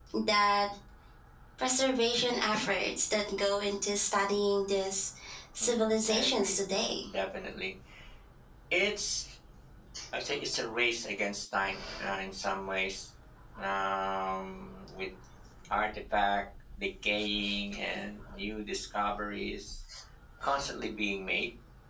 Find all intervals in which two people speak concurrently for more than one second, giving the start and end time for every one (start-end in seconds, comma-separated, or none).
5.6-7.0